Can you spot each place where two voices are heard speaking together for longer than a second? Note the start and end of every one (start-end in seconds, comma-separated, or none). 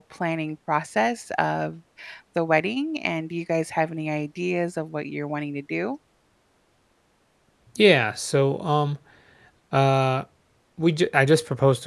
none